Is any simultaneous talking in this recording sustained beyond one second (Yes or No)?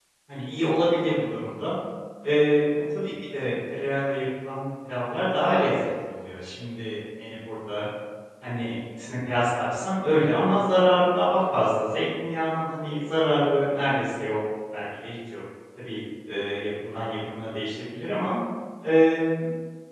No